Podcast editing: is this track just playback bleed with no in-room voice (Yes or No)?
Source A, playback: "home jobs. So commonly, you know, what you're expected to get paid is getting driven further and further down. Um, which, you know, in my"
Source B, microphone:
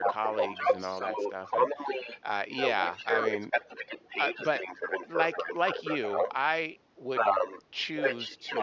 No